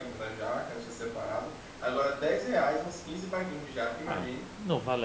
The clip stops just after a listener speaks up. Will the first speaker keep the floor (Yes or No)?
No